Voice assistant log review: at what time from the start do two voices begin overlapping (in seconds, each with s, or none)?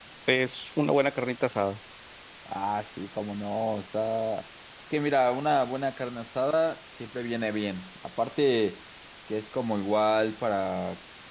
none